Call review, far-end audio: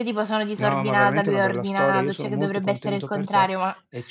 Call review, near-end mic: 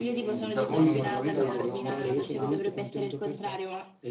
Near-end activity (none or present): present